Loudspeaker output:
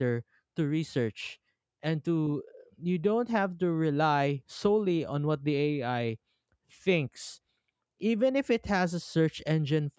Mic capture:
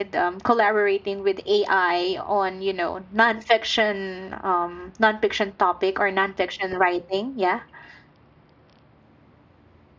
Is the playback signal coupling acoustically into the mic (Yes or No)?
No